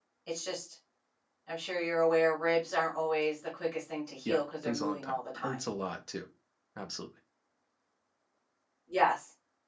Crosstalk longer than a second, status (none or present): present